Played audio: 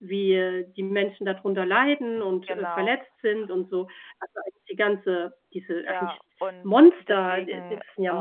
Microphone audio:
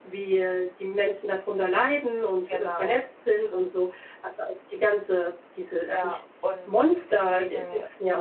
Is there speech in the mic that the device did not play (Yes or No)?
No